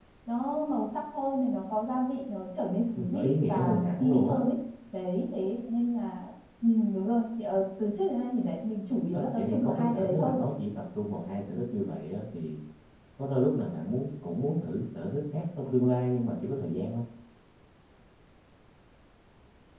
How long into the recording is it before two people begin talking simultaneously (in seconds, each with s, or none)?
3.0 s